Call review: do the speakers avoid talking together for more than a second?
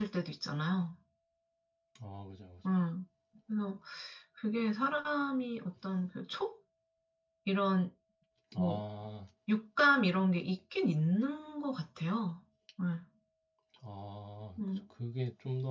Yes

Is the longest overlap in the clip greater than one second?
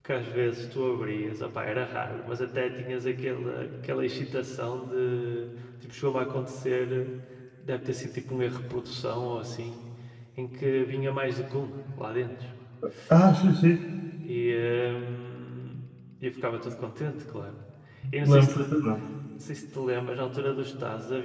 No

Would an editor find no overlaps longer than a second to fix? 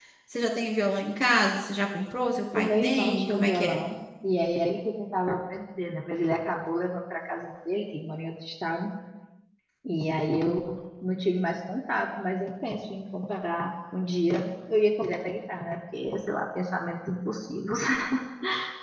No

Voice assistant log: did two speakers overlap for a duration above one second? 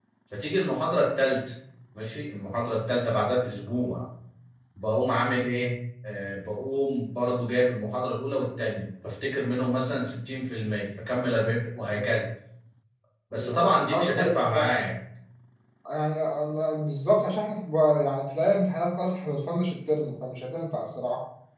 Yes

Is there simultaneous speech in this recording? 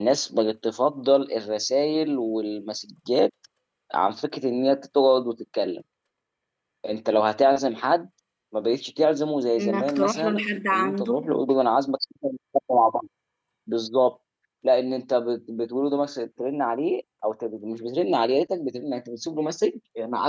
Yes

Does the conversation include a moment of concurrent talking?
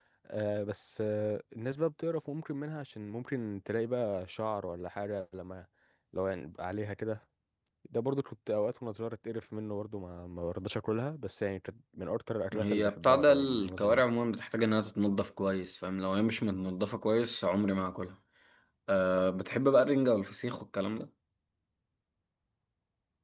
Yes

